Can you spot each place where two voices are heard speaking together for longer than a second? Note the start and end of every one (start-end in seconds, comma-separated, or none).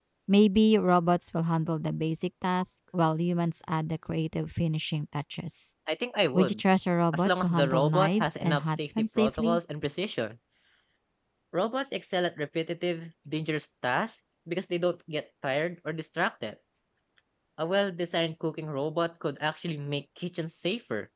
7.1-9.6